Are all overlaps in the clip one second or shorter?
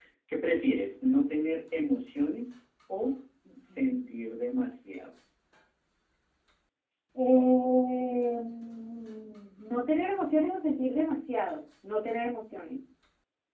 Yes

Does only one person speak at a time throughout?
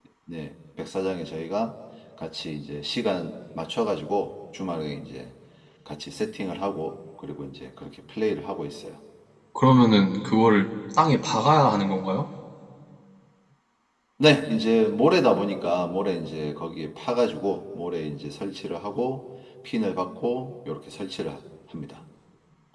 Yes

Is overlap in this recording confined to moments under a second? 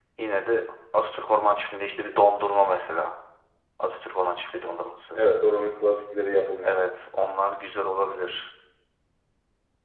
Yes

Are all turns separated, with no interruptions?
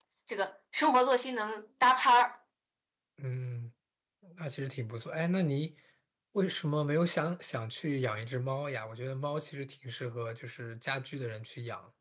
Yes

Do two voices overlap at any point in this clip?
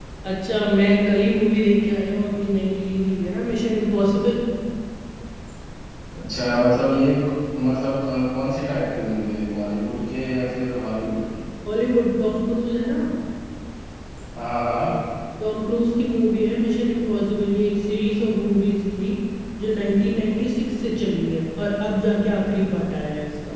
No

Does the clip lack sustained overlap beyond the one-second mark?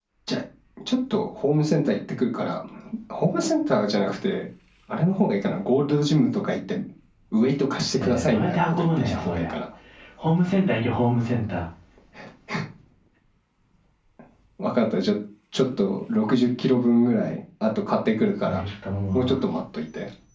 No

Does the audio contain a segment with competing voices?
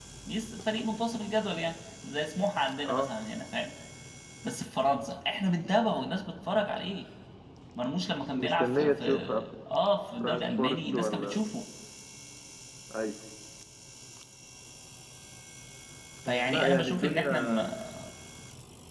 Yes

